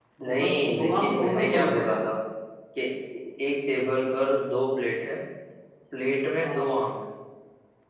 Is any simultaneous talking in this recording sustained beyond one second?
Yes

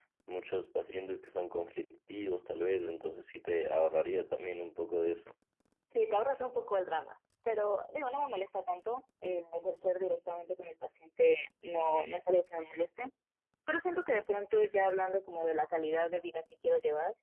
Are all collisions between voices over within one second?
Yes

